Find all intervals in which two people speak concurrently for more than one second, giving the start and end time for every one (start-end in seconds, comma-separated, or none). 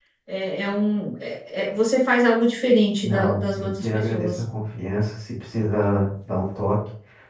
3.0-4.3